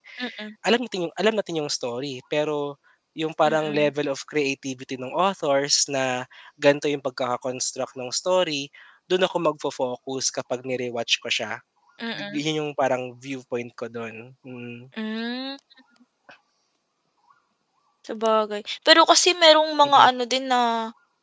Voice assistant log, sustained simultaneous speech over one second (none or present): none